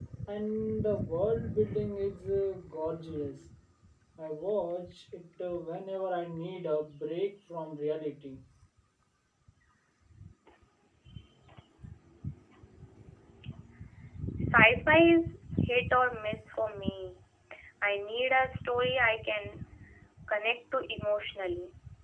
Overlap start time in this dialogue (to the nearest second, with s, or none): none